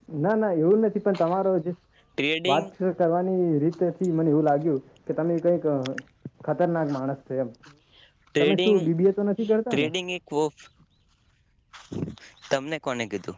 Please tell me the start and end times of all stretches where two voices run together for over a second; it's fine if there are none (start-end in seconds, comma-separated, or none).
none